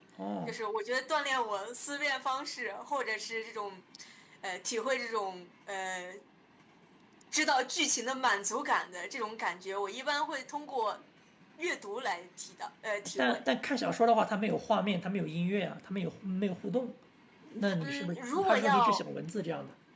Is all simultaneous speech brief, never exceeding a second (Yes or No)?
No